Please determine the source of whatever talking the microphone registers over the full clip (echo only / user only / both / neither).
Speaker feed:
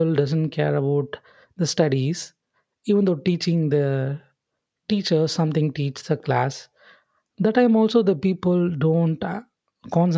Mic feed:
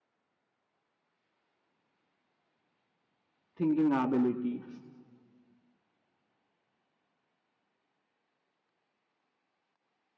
user only